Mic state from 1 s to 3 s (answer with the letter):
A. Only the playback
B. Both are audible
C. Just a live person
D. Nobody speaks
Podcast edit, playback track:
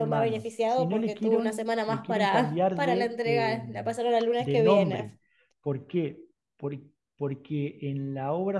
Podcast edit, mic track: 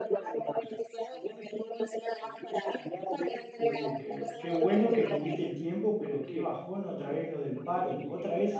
A